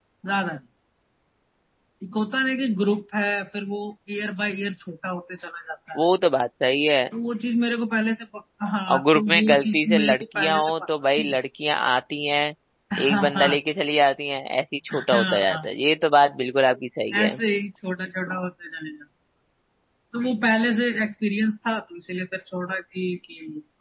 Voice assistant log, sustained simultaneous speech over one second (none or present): present